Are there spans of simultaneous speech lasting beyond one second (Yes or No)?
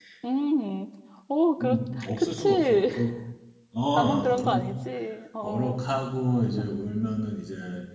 Yes